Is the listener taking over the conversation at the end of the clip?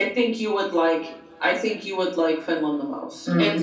Yes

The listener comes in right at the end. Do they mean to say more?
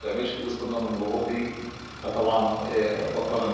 No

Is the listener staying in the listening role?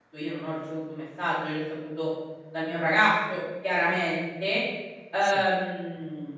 Yes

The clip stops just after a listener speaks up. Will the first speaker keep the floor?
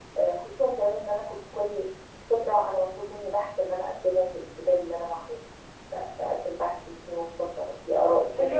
No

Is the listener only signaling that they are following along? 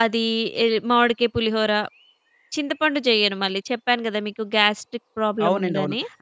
No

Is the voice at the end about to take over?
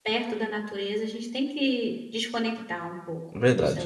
Yes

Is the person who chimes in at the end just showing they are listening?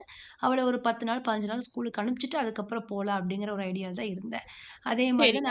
No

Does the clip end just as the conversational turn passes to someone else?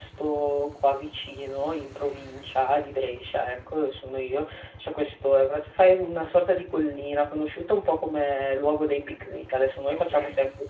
No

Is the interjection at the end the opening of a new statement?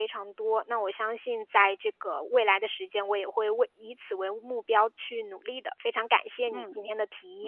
Yes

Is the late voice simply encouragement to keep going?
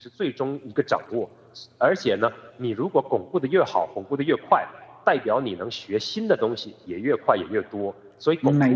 No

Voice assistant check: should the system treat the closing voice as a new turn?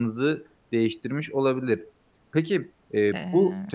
No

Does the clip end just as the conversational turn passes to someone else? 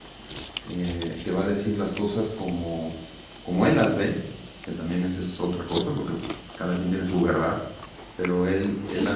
No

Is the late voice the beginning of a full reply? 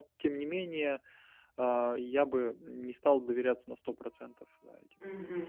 Yes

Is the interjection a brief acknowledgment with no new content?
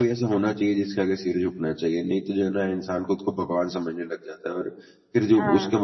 Yes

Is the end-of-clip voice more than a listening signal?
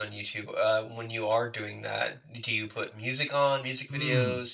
Yes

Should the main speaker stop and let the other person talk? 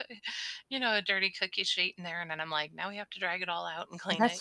Yes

